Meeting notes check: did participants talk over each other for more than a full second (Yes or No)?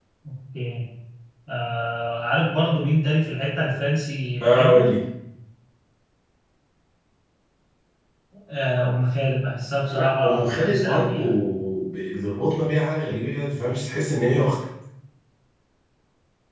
Yes